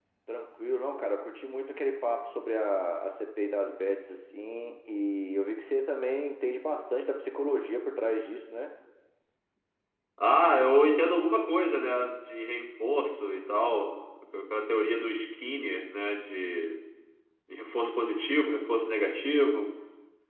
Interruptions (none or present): none